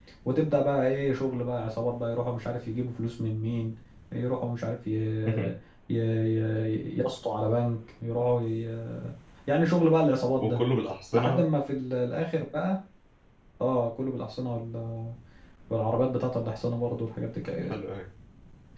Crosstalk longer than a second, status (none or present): none